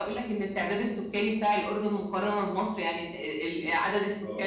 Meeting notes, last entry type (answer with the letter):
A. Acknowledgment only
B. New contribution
A